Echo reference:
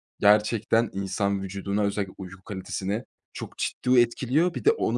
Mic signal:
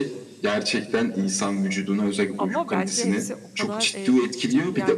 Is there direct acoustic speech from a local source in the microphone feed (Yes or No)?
Yes